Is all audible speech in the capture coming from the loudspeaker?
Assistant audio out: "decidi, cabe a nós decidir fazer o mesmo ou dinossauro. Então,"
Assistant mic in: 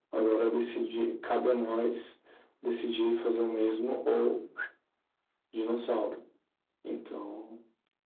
Yes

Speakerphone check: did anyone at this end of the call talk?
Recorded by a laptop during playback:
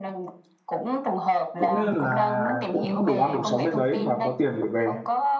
Yes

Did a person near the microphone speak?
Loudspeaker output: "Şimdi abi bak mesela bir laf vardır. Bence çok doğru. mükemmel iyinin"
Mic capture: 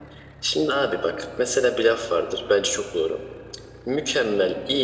No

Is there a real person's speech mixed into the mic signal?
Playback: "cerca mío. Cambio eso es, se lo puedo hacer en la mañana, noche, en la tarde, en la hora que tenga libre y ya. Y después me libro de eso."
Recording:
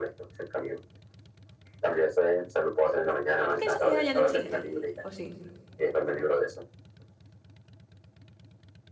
Yes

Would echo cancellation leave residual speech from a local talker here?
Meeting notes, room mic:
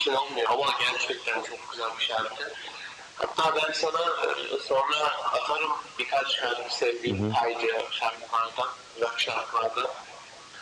Yes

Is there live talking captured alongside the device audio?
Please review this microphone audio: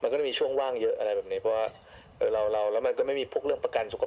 No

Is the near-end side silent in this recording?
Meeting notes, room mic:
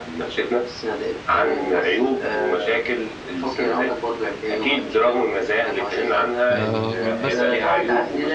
No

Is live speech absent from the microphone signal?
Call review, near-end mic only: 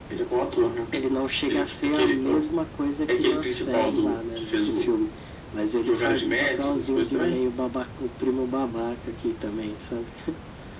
Yes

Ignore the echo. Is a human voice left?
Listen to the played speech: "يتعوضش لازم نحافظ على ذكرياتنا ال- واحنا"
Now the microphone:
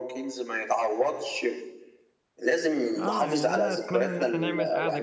Yes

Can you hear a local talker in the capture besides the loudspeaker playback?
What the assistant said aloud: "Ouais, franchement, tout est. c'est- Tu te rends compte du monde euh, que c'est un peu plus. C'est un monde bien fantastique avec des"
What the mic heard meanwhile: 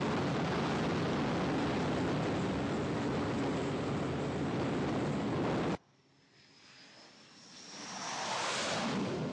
No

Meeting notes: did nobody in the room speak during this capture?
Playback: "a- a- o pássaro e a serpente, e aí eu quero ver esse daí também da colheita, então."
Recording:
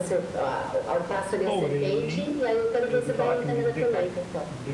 No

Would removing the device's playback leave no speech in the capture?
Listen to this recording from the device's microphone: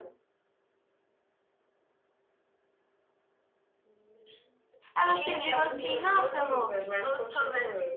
No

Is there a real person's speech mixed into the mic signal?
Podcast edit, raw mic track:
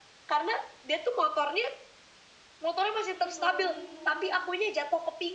Yes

